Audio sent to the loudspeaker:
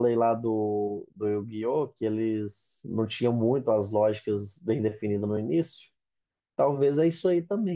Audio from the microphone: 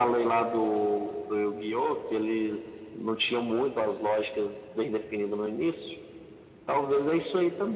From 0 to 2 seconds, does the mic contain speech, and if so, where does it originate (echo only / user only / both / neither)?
echo only